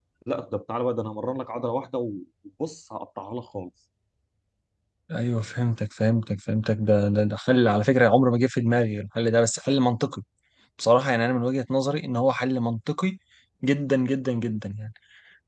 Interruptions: none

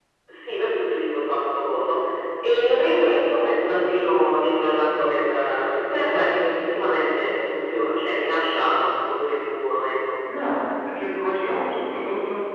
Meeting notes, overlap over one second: none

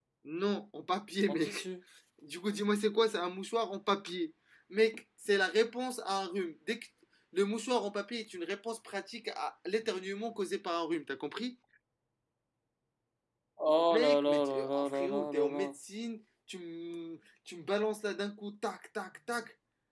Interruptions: present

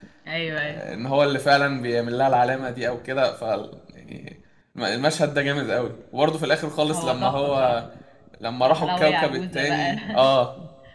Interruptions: present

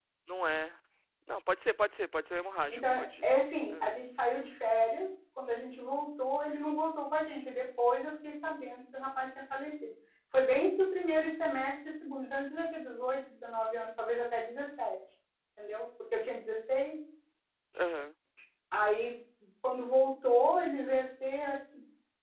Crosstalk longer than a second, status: none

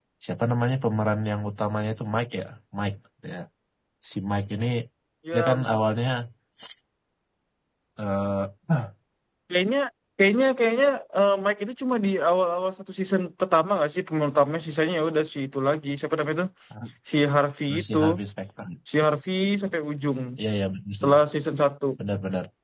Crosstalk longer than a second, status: none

